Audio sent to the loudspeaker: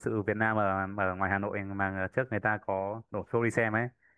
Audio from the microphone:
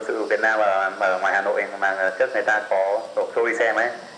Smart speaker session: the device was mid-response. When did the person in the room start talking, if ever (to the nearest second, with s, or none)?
none